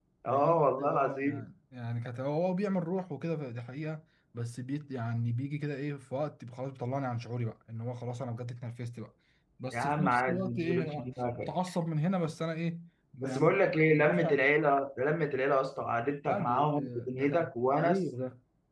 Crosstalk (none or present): present